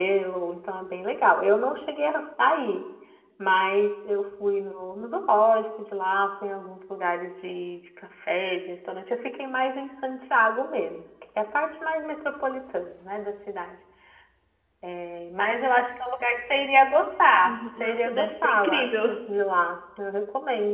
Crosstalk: present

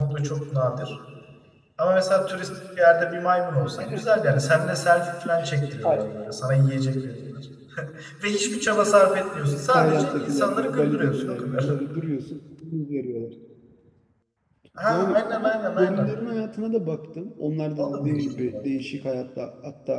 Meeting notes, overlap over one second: present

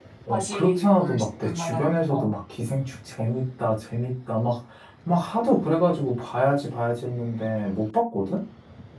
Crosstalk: present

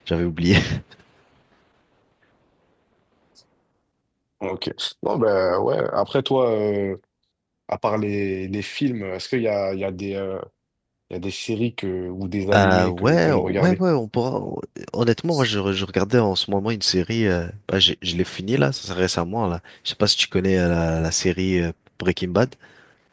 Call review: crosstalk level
present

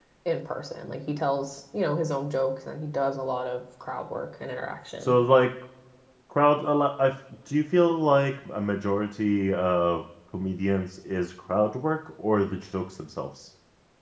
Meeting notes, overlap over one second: none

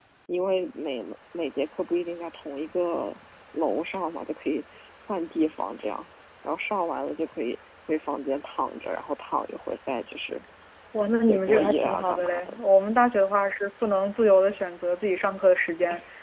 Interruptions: present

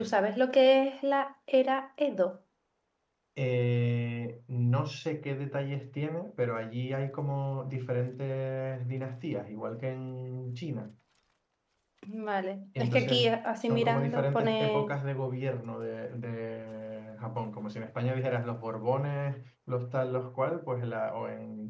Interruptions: present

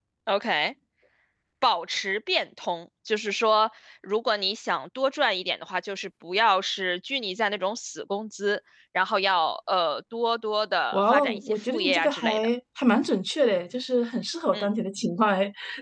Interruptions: present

